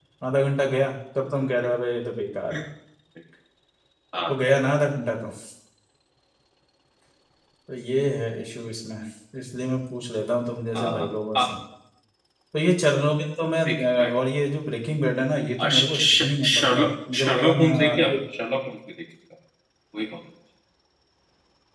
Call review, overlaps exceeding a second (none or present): present